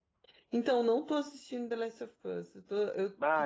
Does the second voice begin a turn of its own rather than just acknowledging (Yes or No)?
Yes